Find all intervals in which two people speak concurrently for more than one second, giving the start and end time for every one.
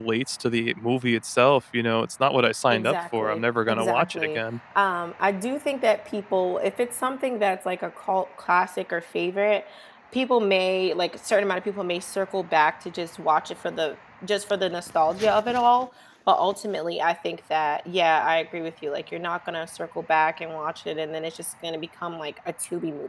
2.7-4.4

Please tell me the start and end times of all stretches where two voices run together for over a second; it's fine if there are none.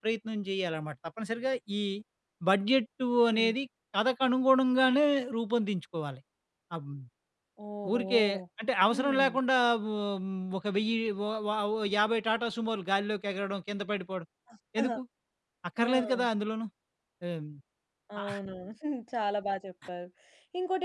none

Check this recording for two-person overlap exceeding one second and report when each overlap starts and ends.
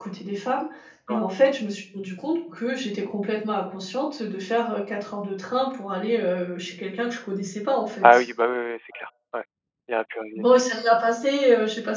none

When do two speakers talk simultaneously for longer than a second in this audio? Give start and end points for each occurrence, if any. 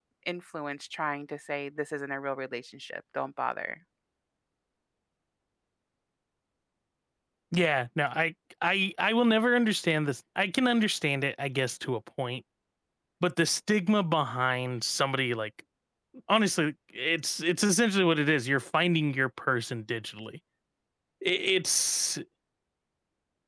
none

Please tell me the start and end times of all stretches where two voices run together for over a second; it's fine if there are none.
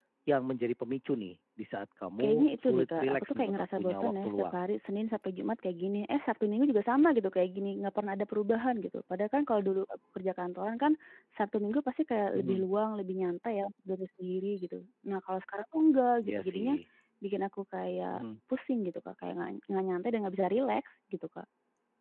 2.2-4.6

